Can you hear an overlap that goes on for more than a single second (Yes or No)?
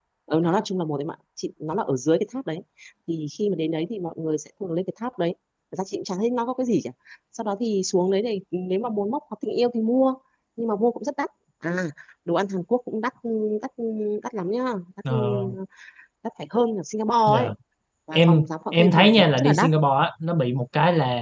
Yes